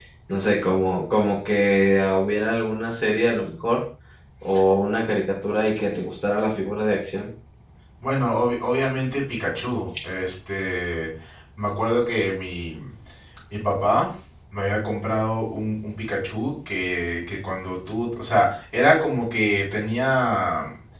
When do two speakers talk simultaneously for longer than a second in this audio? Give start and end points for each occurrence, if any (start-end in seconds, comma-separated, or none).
none